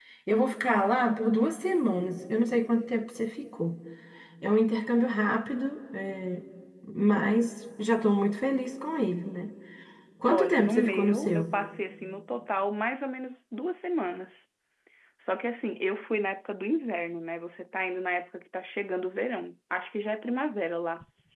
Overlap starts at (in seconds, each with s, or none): 10.3 s